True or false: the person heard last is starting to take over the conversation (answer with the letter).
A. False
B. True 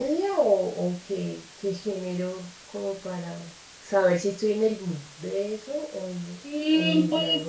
B